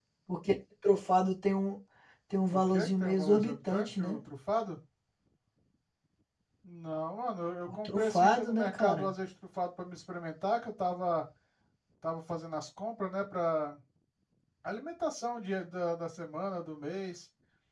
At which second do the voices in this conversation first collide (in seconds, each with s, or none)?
2.5 s